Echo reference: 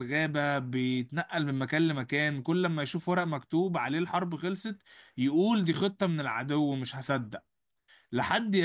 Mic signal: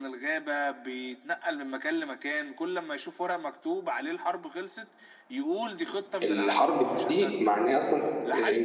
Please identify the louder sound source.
user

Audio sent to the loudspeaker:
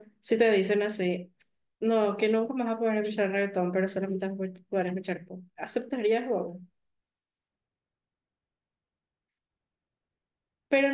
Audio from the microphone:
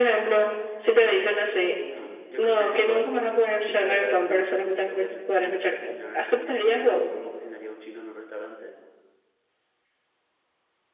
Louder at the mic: echo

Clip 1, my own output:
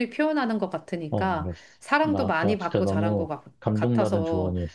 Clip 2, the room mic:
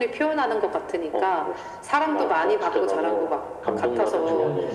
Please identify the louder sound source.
echo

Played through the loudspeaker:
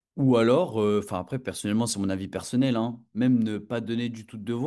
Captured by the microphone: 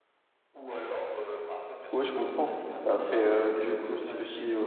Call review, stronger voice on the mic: user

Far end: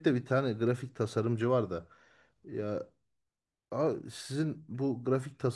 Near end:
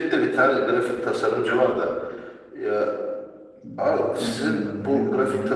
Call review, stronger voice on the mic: echo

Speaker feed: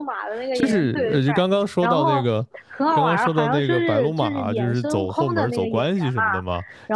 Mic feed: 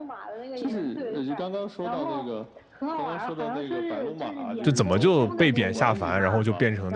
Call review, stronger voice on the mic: user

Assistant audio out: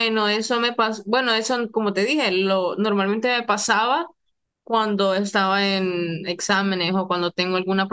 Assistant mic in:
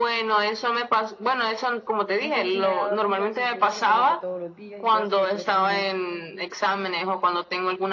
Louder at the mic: echo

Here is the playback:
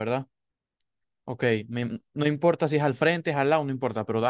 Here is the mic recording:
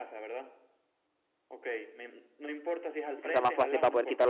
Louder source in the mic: user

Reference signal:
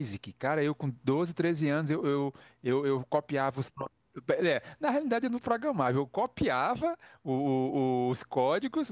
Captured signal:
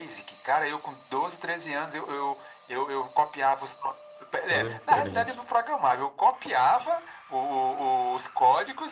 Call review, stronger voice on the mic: echo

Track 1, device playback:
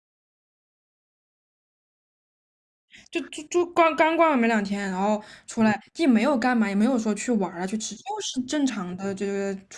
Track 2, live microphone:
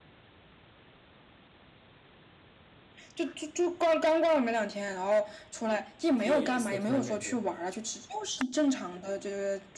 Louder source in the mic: echo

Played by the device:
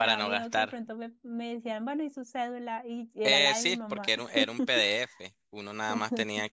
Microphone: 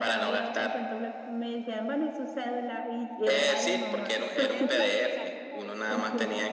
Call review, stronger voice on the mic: echo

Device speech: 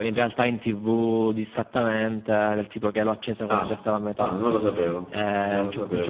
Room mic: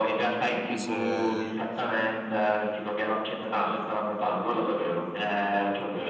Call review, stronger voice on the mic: echo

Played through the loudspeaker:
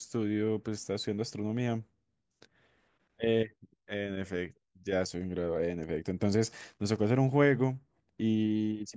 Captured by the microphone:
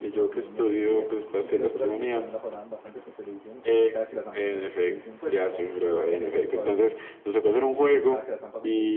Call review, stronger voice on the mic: echo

